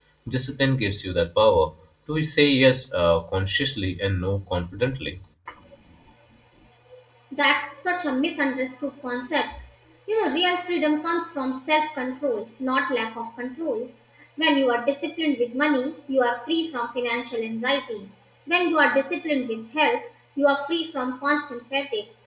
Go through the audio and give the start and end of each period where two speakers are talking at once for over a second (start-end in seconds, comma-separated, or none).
none